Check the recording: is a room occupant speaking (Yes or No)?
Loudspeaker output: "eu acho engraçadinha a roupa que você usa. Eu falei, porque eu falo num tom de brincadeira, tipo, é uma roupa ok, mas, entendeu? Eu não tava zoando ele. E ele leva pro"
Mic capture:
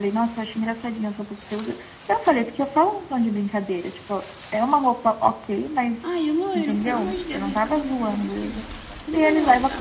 Yes